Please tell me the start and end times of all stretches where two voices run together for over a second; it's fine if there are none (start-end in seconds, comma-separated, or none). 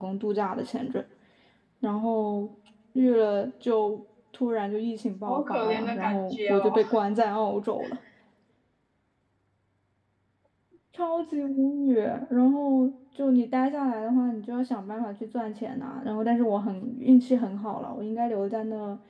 5.2-6.8